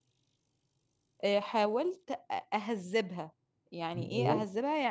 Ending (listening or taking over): listening